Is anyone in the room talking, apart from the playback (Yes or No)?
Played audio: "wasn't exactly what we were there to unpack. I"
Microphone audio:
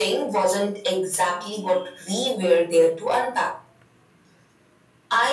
No